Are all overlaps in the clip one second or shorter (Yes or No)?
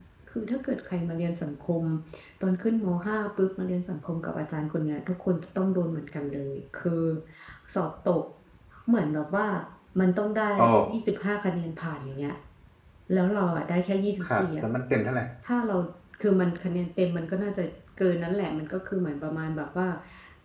Yes